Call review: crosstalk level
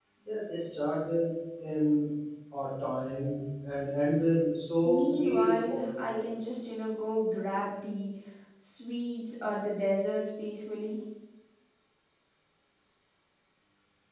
present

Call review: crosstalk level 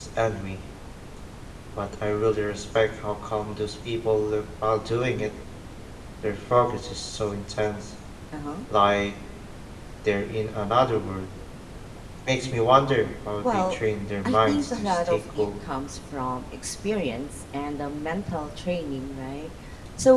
present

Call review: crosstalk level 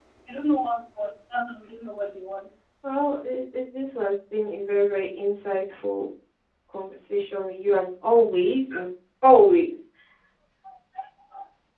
none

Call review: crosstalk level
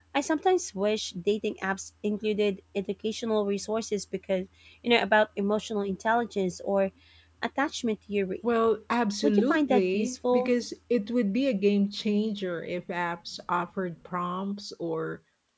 present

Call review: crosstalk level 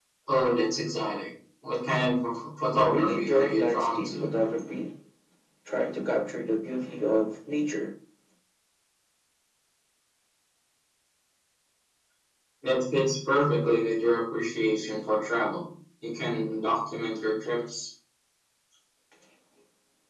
present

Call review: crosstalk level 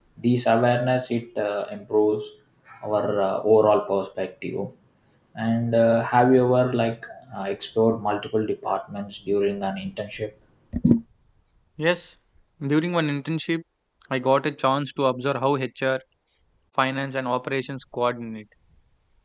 none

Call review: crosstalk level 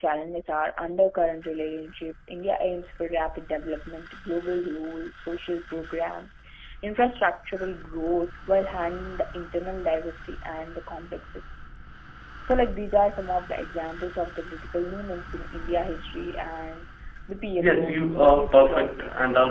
present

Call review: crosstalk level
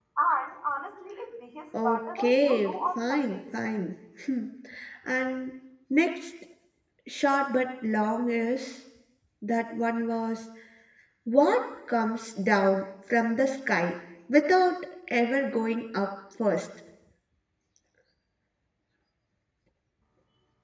present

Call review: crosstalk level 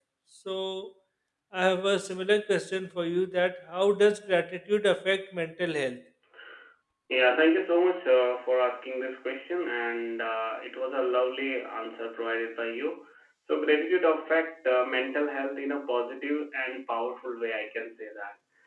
none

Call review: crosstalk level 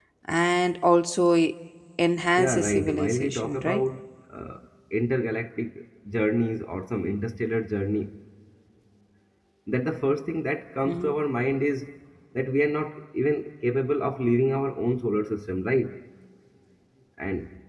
present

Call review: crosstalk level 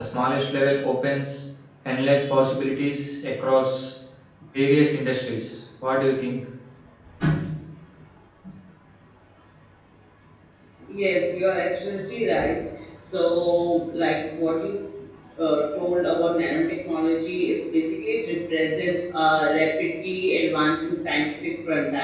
none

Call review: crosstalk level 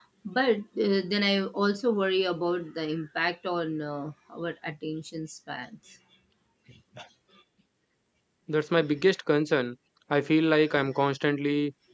none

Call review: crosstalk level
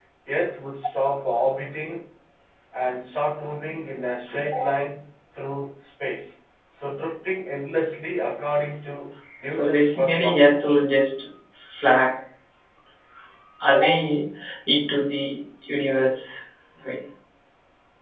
present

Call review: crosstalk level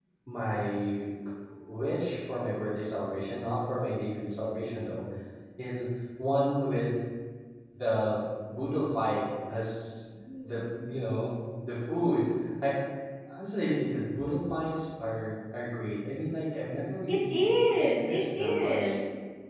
present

